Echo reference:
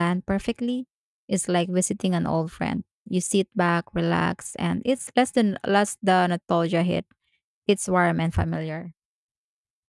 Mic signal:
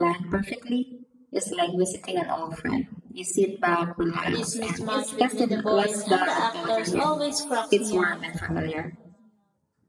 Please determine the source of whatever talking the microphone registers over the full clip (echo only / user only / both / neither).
both